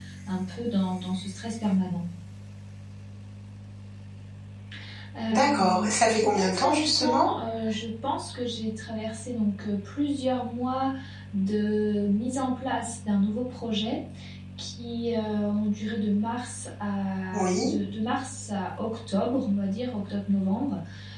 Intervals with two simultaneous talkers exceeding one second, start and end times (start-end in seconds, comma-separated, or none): 5.3-7.3